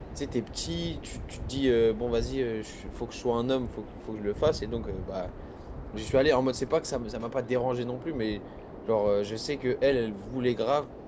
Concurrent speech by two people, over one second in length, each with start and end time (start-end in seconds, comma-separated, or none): none